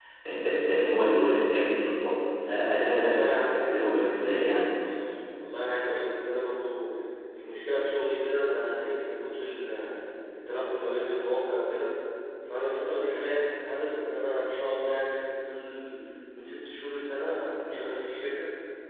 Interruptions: present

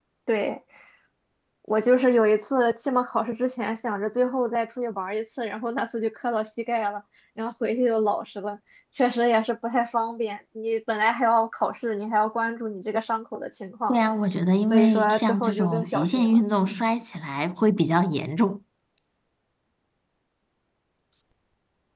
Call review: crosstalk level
present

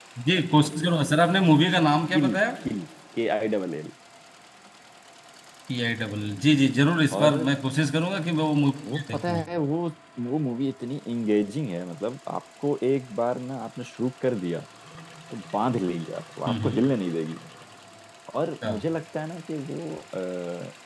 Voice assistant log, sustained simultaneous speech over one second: none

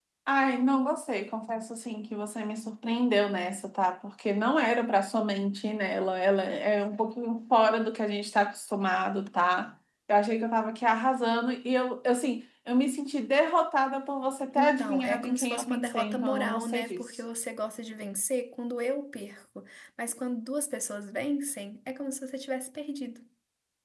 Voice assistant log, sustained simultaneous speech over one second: present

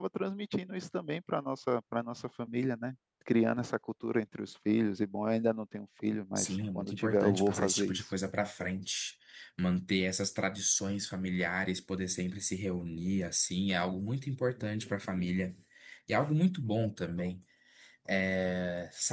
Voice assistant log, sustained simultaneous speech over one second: present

